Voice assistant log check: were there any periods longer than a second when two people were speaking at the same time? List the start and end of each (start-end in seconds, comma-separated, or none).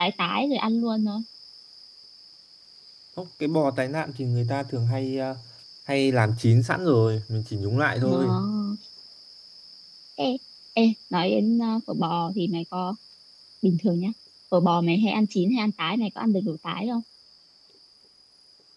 none